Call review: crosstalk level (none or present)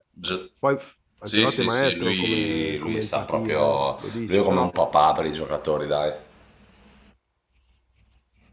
present